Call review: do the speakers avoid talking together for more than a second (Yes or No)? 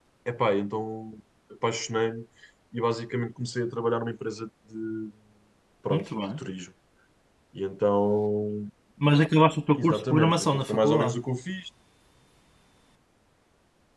No